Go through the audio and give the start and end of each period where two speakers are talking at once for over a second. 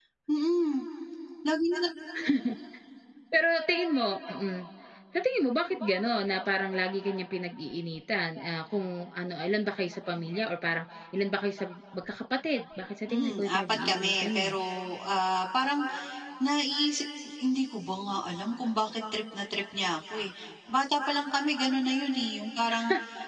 13.1-14.6

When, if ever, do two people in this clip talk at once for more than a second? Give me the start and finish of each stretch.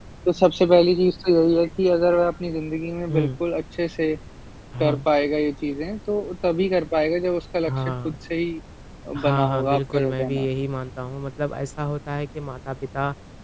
9.2-10.5

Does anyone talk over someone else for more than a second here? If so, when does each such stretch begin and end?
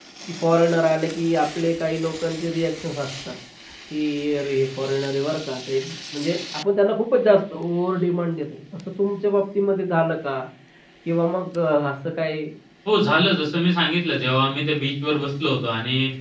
none

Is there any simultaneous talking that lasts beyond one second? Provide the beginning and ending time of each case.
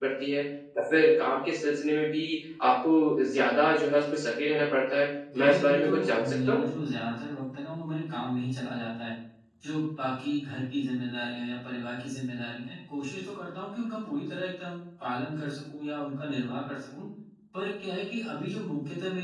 5.3-6.6

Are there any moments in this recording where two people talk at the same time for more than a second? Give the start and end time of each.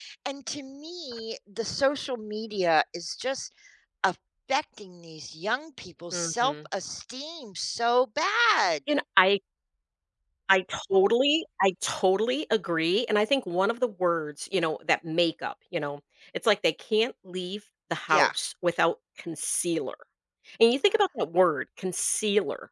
none

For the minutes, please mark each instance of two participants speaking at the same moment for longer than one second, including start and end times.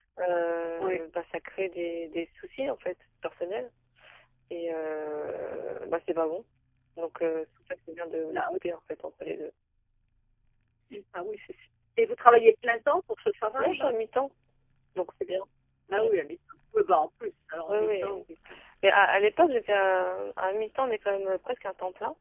none

